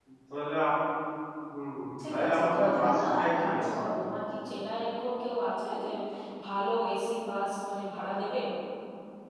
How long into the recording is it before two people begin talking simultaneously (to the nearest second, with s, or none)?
2 s